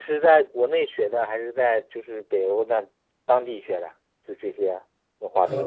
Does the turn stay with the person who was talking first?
No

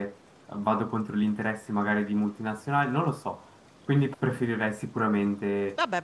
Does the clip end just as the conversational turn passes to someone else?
Yes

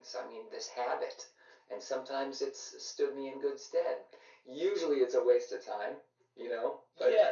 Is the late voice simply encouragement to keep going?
No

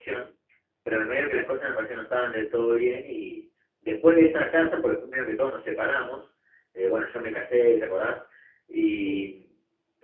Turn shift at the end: No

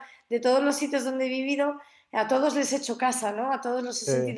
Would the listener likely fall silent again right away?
Yes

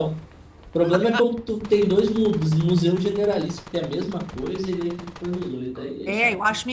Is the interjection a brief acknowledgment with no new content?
No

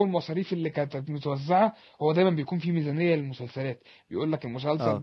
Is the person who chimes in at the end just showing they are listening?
Yes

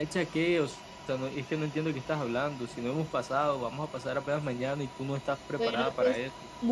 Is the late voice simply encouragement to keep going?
No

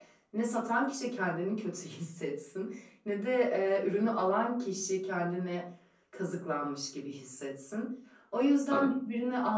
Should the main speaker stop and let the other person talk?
No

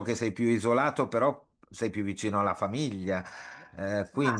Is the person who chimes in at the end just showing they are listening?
No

